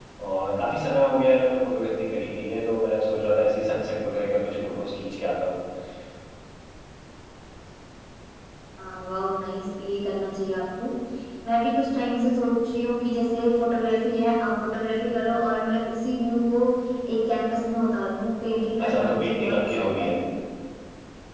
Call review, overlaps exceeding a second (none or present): present